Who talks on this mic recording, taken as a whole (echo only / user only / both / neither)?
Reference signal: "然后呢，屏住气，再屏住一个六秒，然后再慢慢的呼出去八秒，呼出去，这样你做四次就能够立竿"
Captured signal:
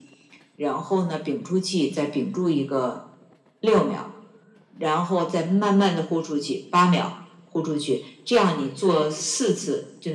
echo only